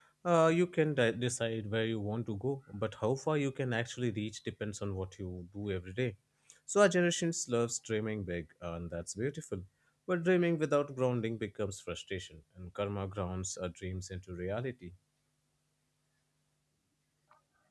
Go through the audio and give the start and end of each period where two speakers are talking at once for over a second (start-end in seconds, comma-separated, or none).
none